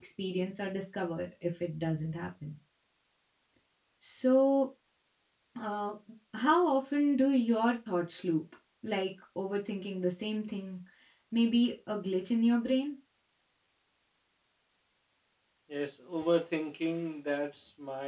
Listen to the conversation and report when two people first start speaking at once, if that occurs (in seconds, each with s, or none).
none